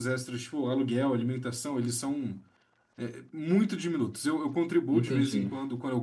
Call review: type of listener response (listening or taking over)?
listening